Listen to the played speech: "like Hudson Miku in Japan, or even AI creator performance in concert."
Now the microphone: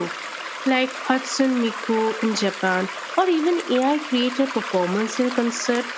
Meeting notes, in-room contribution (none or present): none